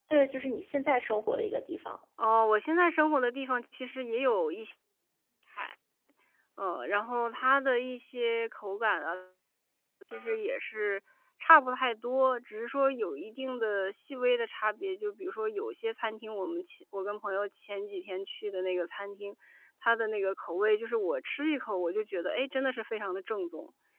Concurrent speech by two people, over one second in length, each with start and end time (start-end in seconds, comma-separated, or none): none